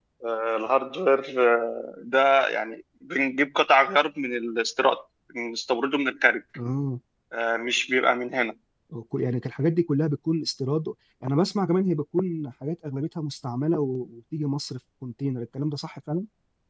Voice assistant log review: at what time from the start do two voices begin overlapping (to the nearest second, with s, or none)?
none